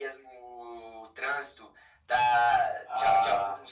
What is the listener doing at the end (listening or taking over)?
listening